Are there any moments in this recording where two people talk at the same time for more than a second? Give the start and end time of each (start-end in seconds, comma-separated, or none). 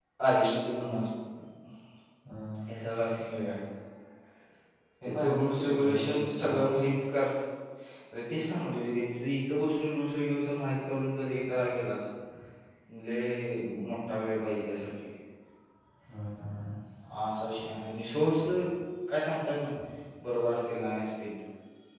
5.0-6.7